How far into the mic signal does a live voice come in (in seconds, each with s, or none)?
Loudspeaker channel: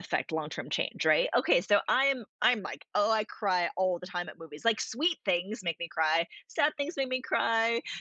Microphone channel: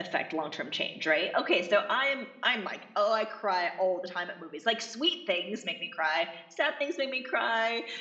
none